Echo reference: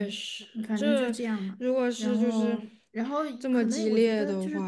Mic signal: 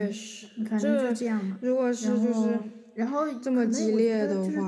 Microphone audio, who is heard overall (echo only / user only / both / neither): echo only